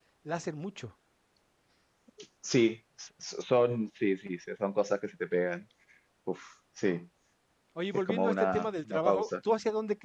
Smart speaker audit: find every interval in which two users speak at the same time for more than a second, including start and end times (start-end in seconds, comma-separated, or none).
7.9-9.3